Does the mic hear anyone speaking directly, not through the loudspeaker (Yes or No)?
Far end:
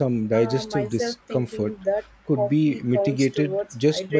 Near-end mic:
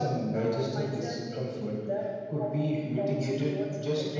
No